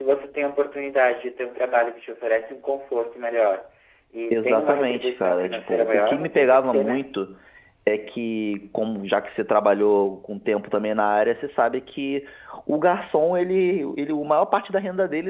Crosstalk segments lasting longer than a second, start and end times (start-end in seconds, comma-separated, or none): 4.3-7.2